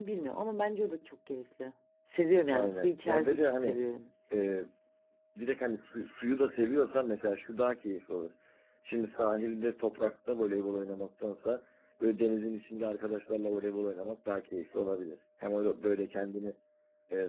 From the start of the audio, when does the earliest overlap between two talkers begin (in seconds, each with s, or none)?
2.5 s